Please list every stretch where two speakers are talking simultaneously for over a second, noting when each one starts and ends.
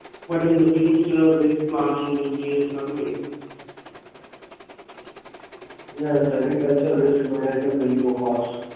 none

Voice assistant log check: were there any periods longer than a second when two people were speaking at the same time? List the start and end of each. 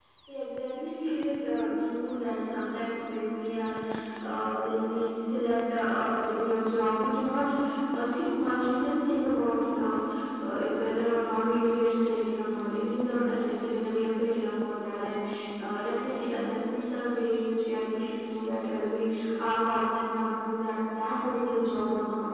none

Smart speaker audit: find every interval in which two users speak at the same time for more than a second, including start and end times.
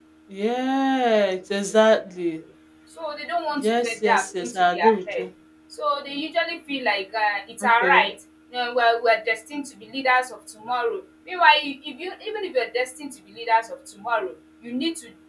3.6-5.2

